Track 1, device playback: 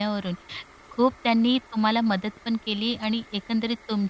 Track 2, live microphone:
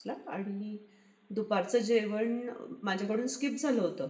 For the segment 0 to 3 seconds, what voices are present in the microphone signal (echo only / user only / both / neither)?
user only